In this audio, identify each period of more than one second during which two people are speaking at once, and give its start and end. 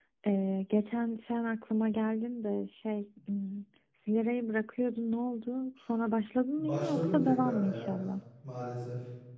6.6-8.0

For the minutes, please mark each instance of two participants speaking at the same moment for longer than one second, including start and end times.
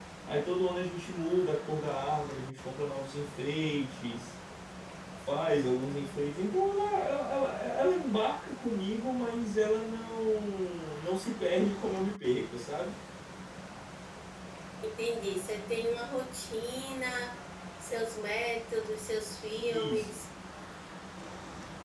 none

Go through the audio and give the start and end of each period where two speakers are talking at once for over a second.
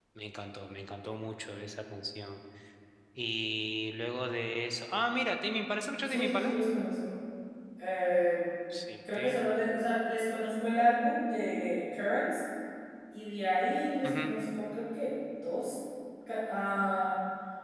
none

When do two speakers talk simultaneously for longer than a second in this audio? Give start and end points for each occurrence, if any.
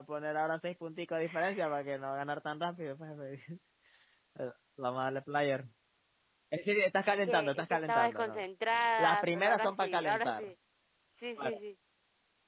7.1-8.4, 9.0-10.5

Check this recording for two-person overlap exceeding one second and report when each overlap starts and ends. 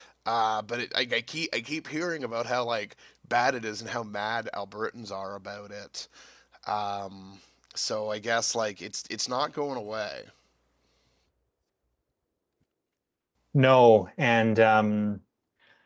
none

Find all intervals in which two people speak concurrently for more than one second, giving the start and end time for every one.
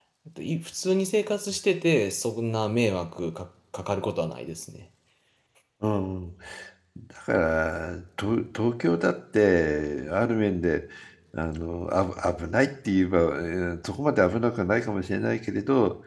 none

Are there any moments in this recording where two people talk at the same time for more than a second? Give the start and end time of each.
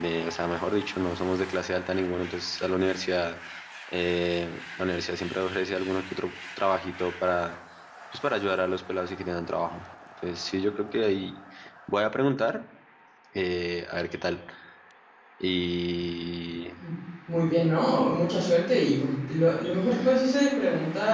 none

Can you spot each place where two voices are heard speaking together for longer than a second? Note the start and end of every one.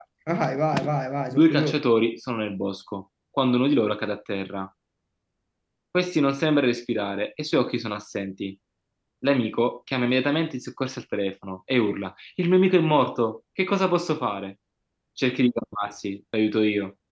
none

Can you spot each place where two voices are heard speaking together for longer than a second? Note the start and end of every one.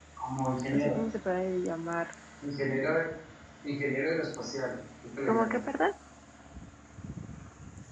none

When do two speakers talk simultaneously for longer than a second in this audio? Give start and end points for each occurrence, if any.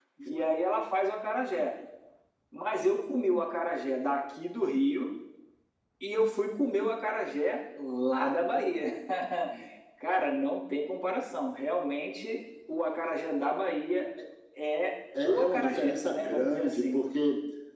15.2-17.0

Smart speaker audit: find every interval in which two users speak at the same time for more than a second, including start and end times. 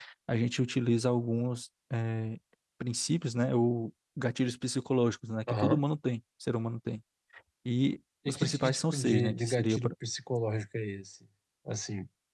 8.3-9.9

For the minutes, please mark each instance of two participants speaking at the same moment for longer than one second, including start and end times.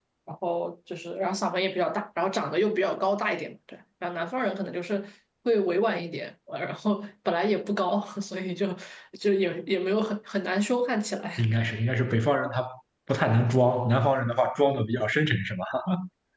none

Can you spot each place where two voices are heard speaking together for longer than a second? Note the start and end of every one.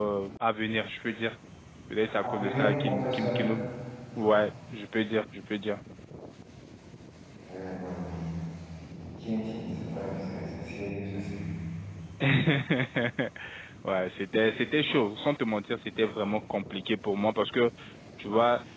2.2-3.6

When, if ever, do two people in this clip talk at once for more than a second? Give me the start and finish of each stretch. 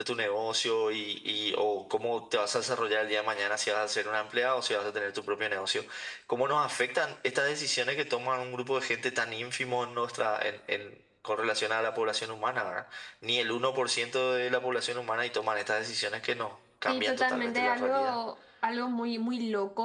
16.9-18.2

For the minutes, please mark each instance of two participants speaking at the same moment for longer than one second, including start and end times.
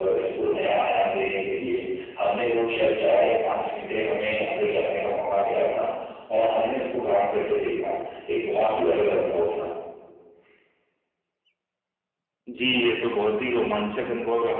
none

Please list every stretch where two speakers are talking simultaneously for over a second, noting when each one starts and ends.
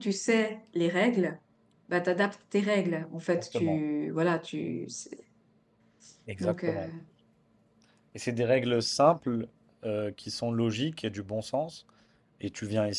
none

